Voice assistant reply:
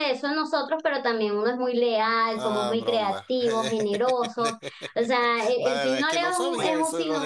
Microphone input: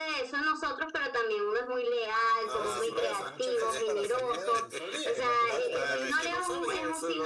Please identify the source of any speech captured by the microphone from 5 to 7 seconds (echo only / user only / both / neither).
both